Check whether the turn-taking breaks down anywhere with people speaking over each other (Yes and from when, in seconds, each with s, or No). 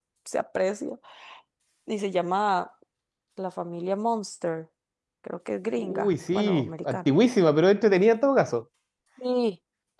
Yes, from 5.8 s